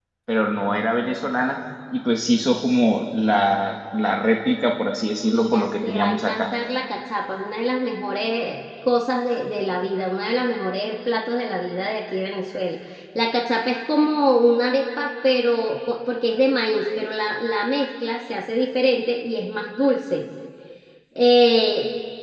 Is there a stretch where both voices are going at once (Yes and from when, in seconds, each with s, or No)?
Yes, from 5.2 s